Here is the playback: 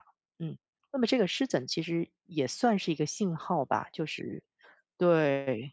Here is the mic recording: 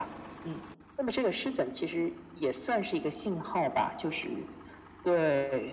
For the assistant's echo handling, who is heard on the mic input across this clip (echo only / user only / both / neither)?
echo only